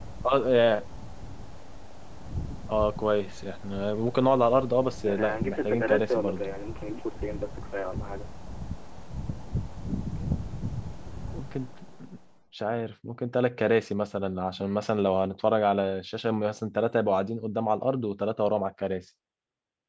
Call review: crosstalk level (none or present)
present